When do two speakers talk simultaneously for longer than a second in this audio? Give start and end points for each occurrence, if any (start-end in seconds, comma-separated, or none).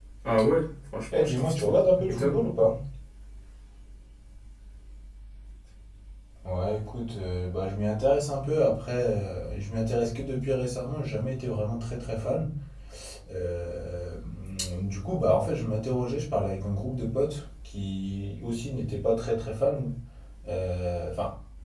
1.1-2.3